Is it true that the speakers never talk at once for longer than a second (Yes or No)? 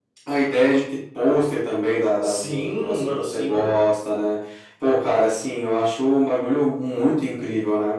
No